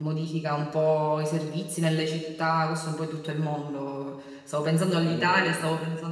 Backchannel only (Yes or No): Yes